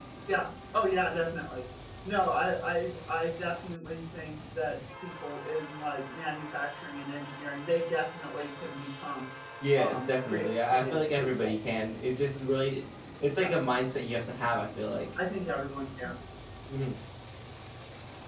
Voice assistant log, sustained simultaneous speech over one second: present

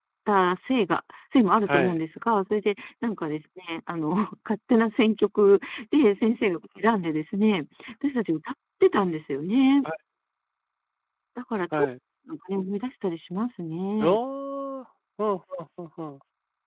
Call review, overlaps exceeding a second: none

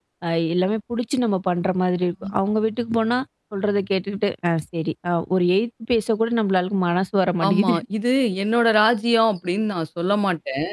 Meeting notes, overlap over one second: none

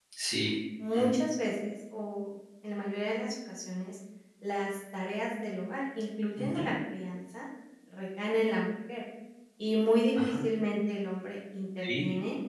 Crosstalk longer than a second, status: none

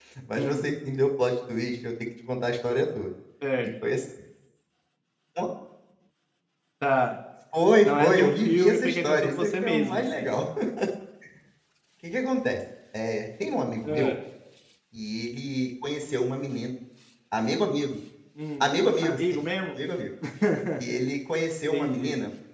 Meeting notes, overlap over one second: present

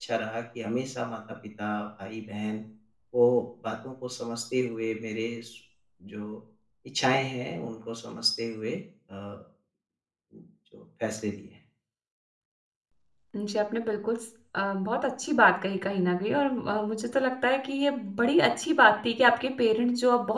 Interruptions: none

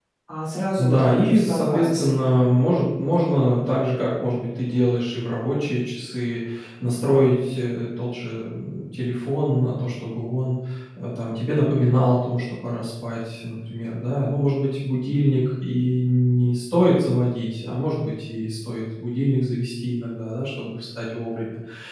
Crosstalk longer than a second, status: present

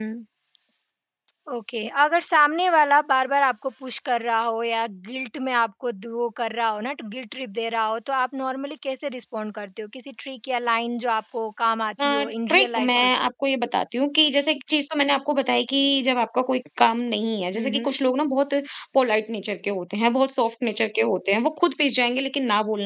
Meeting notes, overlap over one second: present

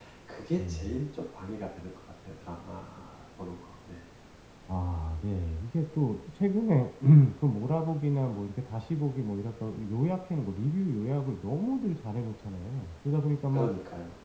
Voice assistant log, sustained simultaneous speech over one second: none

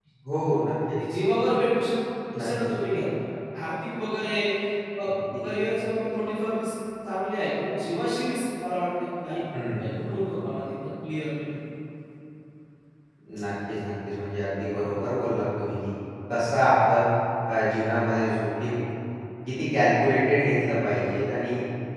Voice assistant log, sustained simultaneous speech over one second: none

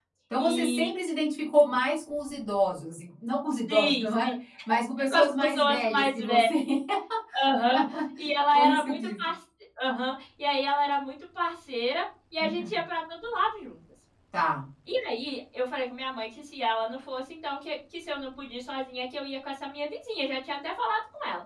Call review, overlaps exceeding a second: present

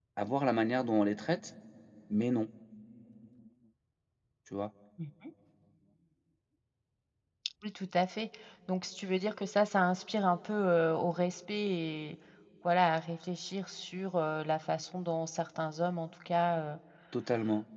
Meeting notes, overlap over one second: none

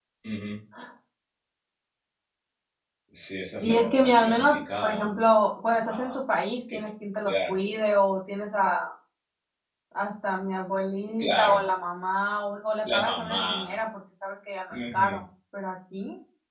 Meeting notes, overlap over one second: present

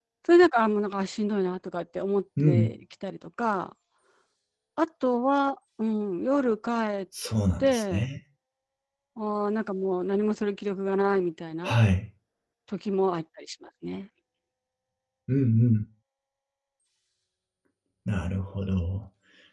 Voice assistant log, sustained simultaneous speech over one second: none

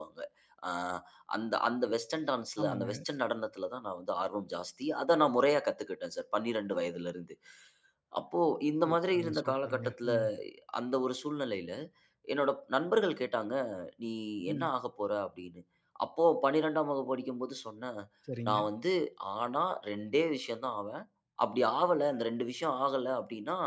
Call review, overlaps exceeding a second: present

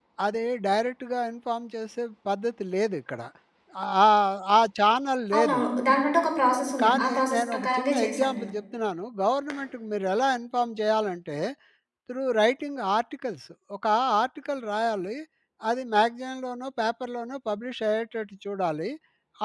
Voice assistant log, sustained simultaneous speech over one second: present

